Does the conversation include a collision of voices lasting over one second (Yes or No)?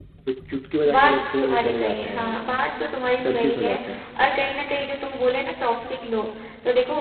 Yes